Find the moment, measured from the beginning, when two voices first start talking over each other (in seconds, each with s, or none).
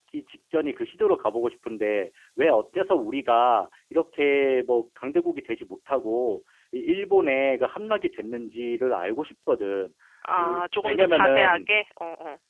10.4 s